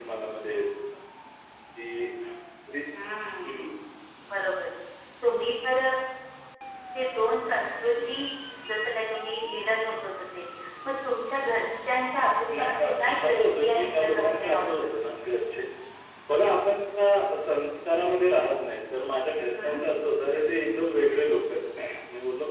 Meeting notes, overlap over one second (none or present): present